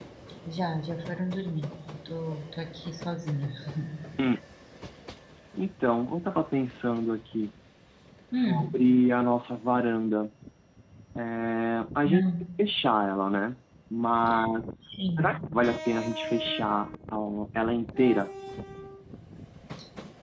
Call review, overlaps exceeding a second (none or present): none